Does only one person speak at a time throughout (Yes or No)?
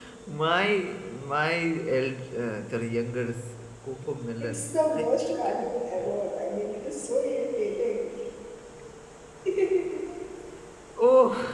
No